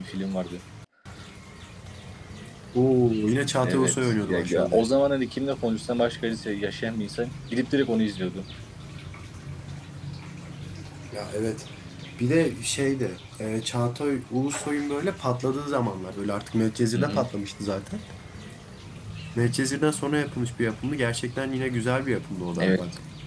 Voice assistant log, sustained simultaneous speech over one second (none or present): present